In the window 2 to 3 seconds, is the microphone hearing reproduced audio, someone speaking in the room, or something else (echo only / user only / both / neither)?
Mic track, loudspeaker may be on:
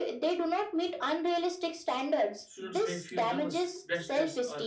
both